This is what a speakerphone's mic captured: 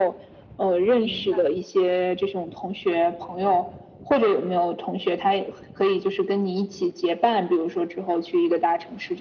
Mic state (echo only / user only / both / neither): both